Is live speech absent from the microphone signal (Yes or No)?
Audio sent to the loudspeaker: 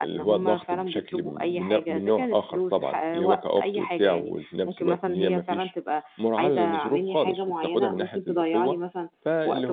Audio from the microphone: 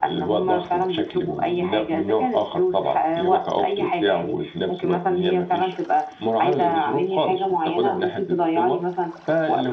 Yes